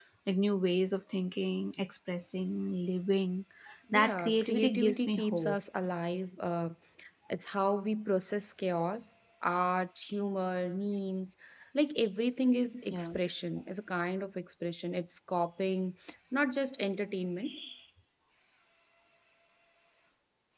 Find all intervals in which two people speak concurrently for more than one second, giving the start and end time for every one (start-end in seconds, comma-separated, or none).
3.9-5.6